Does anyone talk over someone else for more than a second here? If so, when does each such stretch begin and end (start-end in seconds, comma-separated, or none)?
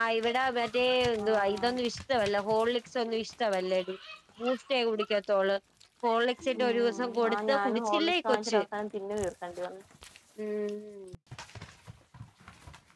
6.6-8.6